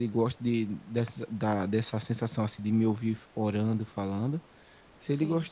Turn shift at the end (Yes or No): No